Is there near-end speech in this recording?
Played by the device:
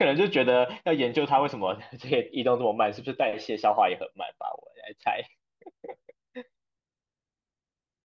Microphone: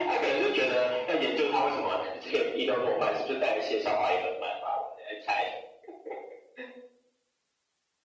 No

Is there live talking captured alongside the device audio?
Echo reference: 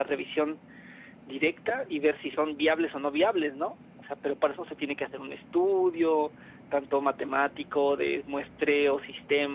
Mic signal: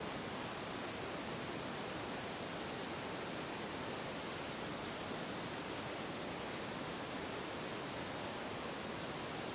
No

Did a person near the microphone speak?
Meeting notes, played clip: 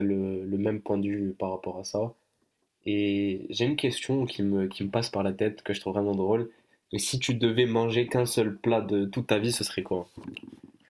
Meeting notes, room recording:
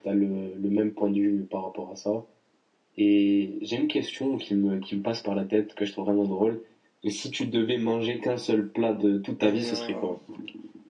Yes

